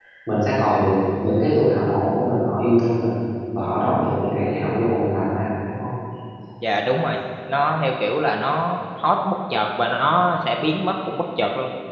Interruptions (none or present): none